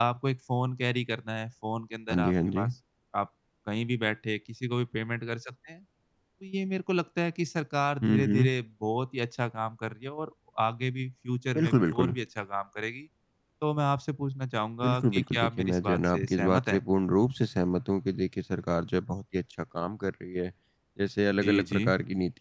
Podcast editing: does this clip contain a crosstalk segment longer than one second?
Yes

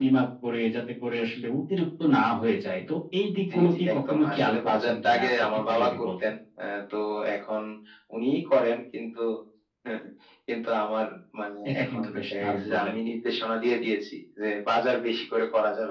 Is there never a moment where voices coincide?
No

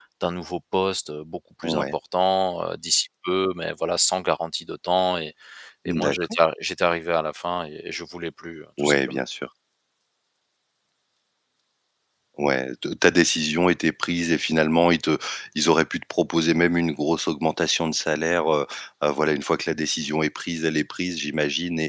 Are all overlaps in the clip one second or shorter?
Yes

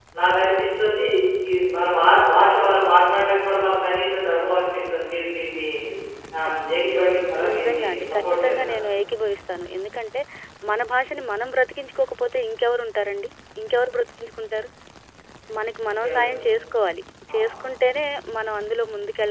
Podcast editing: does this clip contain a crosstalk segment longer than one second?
Yes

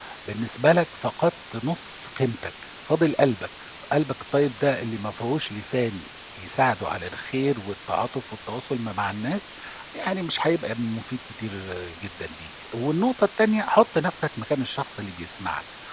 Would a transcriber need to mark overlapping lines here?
No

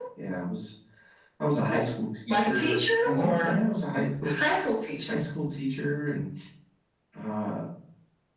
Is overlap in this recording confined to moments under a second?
No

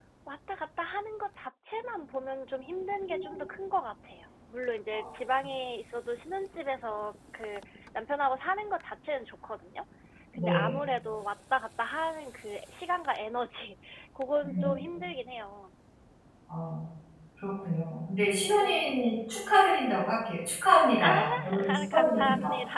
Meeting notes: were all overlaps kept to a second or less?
No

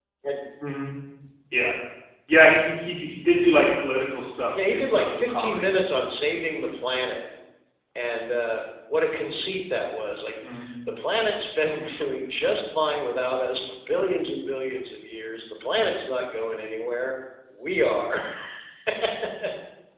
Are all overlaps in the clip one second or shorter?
No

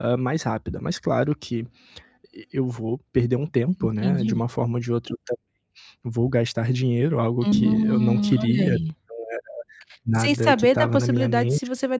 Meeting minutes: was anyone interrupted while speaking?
Yes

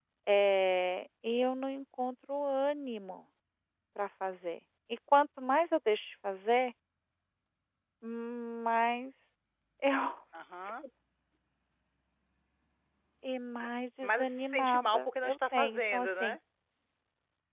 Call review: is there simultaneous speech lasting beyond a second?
Yes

